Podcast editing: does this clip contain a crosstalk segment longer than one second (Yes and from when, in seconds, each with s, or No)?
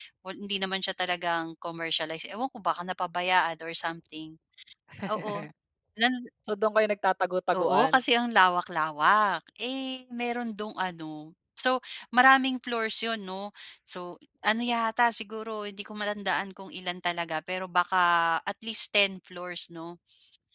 No